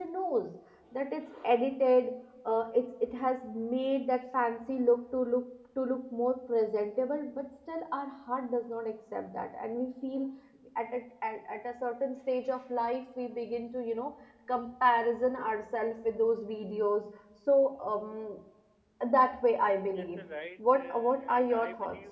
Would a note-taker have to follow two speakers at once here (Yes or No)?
Yes